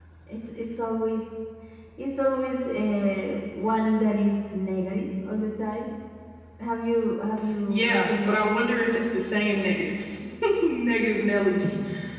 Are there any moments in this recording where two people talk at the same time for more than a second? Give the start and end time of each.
7.7-9.0

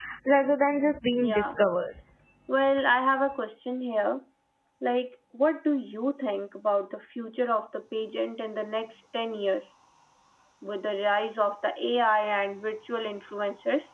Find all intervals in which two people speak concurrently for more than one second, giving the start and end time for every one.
none

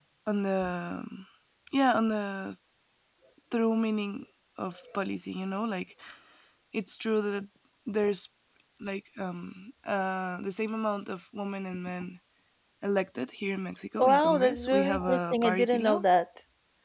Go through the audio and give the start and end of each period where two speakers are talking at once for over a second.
14.1-16.0

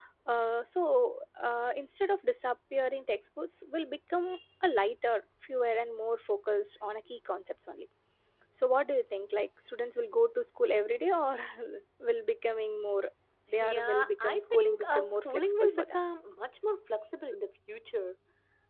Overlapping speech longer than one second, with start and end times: 13.6-16.0

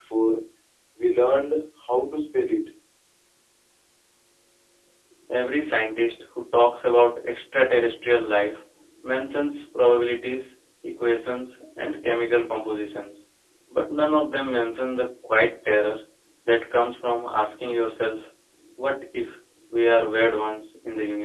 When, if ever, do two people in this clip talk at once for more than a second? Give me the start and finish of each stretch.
none

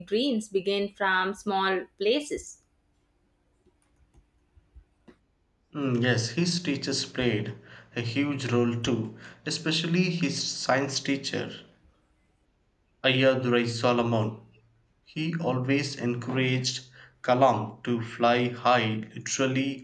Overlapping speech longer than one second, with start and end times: none

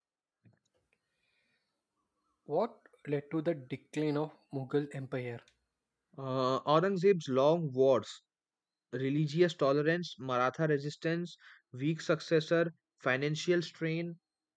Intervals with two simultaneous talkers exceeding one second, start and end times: none

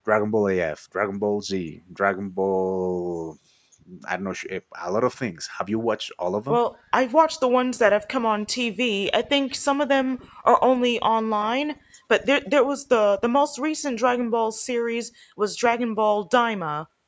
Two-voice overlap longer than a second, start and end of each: none

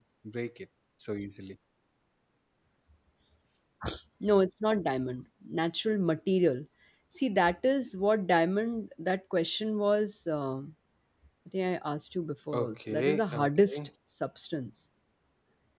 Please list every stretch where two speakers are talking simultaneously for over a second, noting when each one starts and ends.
12.5-13.8

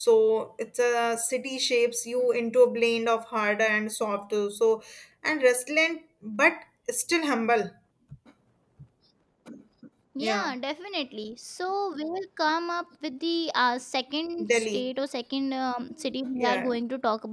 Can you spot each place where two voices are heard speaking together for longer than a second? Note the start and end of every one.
none

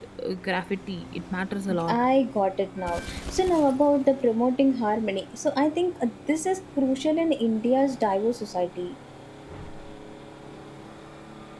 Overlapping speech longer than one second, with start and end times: none

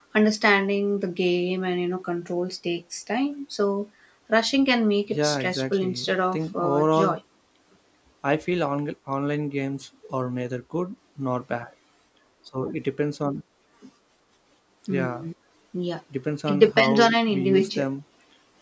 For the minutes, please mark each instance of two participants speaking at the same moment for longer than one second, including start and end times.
5.1-7.1, 16.5-17.9

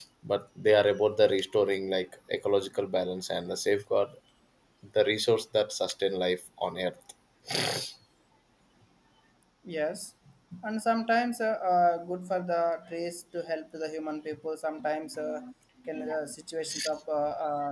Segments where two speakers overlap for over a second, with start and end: none

